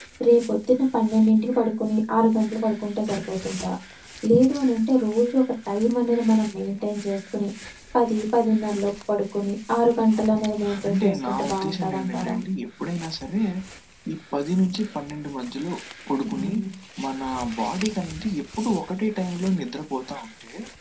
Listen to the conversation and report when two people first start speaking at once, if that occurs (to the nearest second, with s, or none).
11 s